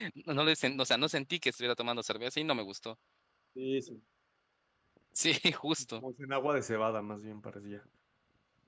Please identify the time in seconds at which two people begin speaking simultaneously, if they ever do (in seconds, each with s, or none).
none